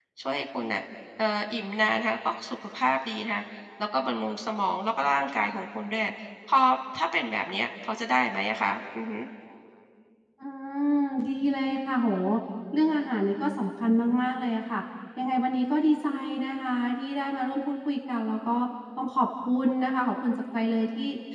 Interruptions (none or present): none